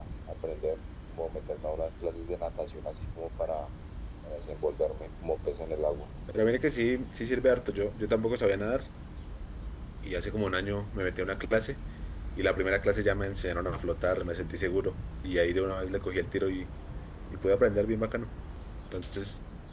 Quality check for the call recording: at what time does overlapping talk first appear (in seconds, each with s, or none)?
none